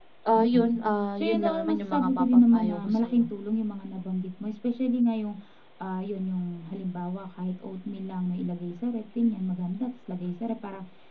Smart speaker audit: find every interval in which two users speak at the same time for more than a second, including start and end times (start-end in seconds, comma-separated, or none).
1.2-3.2